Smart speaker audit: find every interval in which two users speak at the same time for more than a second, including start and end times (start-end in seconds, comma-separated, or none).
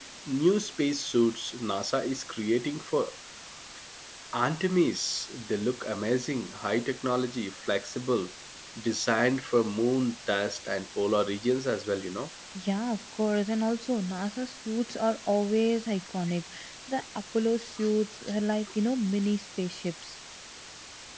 none